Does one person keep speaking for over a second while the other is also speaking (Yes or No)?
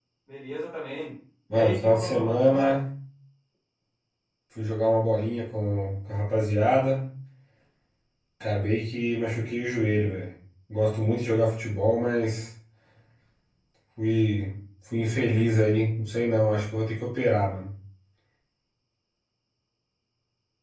Yes